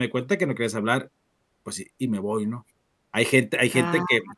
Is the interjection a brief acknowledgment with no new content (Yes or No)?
Yes